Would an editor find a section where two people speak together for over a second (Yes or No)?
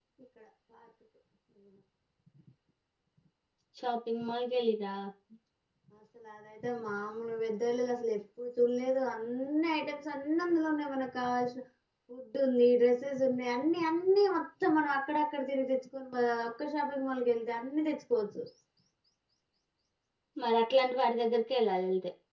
No